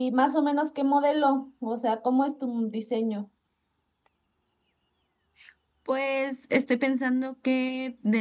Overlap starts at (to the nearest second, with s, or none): none